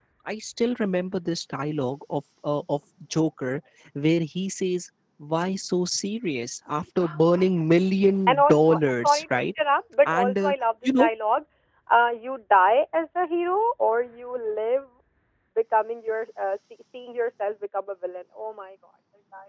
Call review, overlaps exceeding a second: present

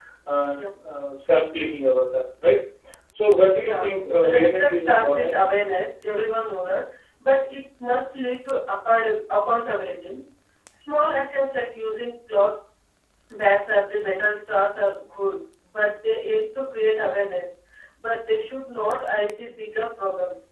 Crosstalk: present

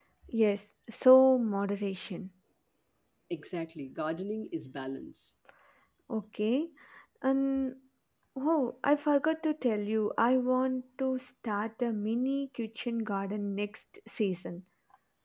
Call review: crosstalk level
none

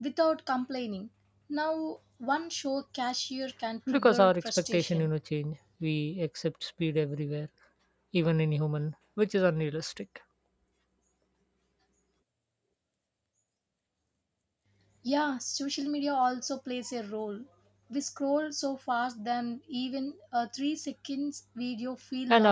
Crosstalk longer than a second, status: present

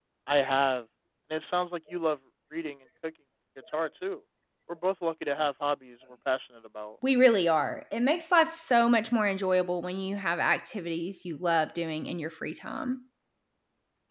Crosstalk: none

